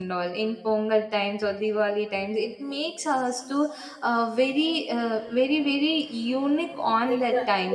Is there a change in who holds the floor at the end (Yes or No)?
Yes